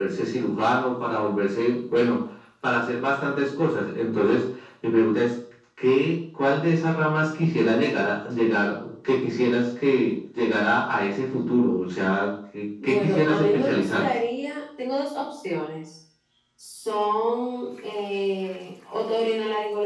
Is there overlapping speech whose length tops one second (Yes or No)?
Yes